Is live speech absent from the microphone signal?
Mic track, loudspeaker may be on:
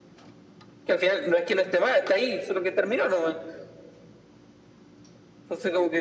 Yes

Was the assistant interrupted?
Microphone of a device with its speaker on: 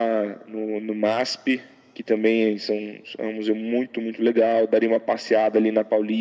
No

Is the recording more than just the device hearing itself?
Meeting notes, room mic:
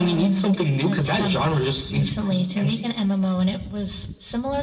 No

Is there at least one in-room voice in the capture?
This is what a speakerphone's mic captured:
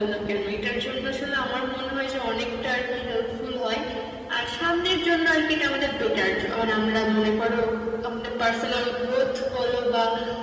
No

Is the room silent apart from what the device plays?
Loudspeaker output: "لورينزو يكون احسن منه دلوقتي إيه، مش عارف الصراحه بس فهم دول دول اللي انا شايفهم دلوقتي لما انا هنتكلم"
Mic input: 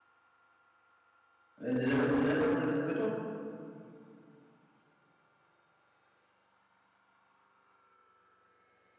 No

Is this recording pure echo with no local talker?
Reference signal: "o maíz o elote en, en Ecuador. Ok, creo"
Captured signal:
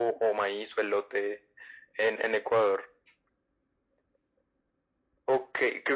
Yes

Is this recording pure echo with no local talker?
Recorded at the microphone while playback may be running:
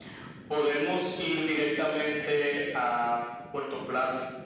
Yes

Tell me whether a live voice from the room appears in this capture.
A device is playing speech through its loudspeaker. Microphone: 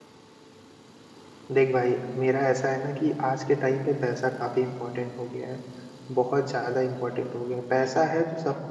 Yes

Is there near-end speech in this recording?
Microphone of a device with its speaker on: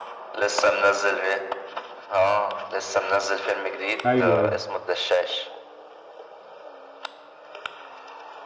Yes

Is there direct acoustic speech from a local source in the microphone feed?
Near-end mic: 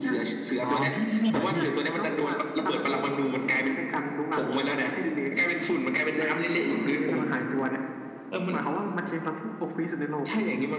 Yes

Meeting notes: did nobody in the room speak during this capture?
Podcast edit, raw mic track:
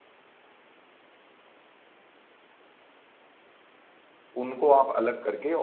No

